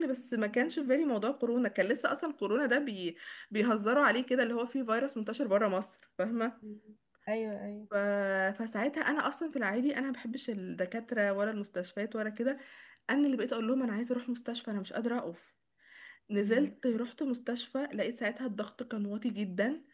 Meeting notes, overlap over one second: none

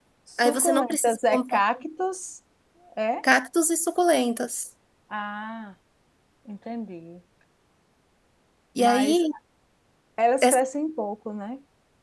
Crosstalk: present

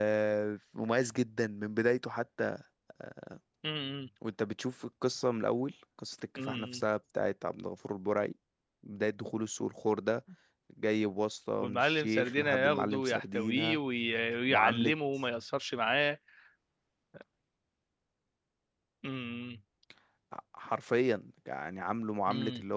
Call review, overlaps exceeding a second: present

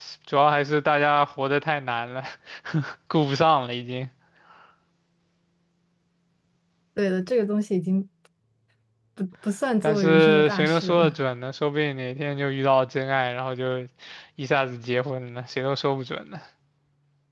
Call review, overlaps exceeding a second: present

